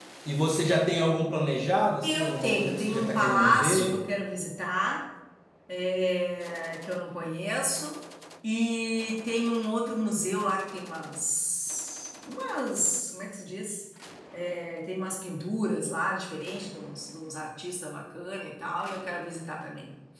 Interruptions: present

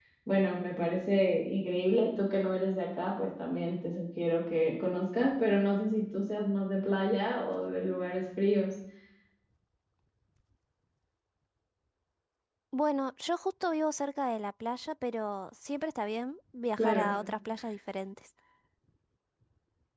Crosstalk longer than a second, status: none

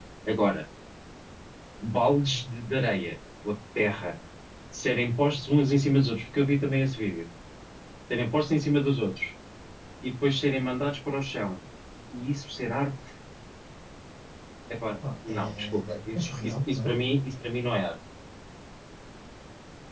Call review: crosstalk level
present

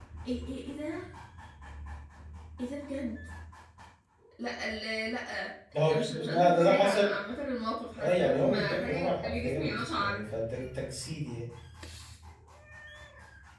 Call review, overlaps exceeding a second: present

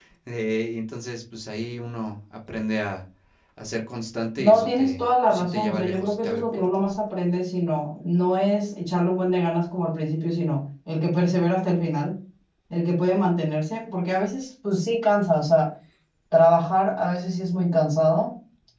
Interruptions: present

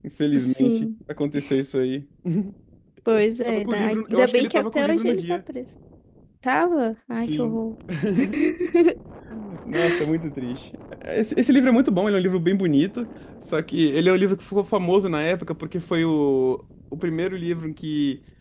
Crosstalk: present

